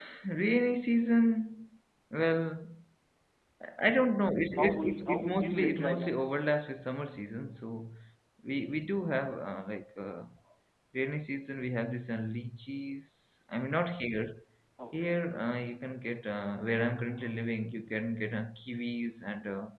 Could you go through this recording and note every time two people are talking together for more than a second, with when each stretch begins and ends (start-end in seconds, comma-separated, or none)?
4.6-6.3